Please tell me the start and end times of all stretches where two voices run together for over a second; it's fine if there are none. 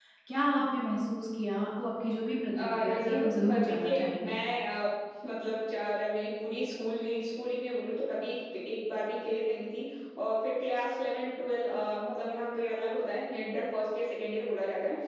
2.6-4.4

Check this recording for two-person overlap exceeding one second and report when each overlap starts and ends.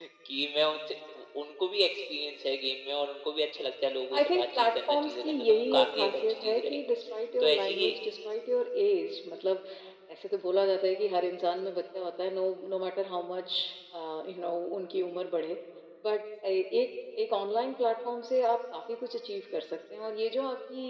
4.2-6.8

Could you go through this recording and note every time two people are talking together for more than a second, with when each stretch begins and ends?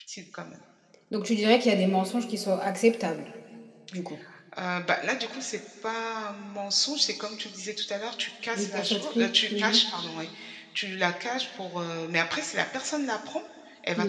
8.5-9.8

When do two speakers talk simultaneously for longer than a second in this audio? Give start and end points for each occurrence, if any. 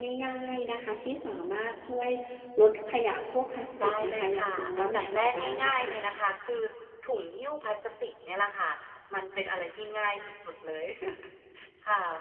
3.8-5.9

